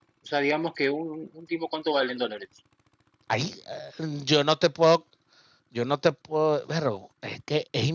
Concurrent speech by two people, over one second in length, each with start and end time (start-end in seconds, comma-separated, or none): none